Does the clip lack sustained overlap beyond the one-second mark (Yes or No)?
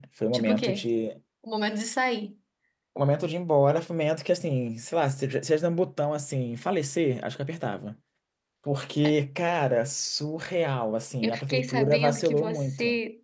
No